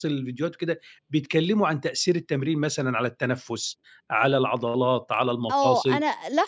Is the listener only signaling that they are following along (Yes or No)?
No